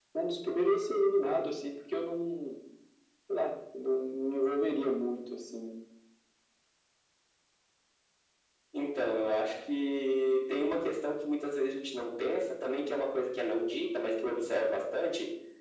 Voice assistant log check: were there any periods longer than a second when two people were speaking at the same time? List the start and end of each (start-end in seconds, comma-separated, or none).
none